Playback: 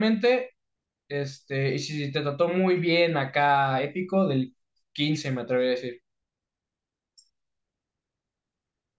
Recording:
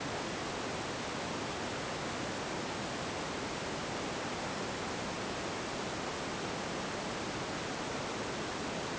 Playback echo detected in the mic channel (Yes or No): No